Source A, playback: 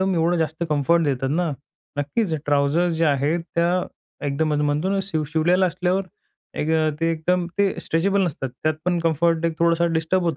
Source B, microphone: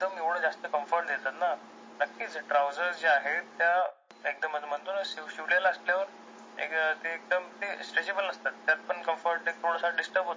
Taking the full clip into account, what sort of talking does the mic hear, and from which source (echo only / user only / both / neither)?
echo only